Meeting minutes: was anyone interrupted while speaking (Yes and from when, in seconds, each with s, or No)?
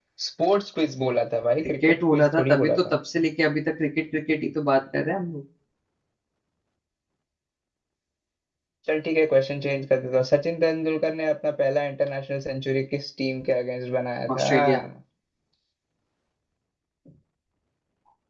Yes, from 1.6 s